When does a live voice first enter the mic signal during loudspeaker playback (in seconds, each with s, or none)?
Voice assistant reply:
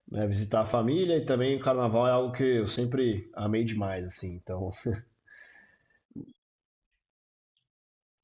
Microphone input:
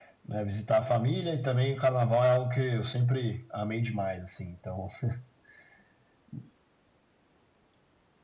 none